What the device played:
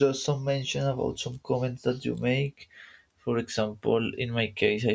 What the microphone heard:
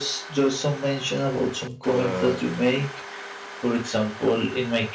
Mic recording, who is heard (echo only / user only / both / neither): both